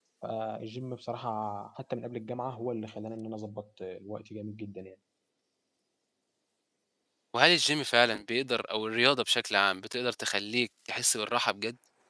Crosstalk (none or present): none